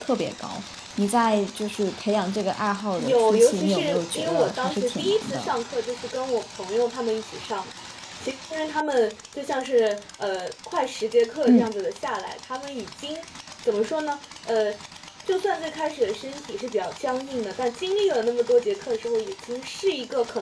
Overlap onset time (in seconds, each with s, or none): 3.0 s